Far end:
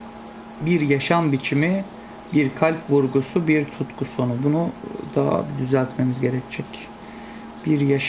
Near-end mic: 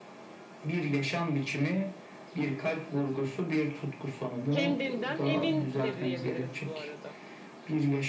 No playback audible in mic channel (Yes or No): No